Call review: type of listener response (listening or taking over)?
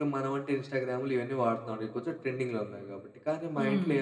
listening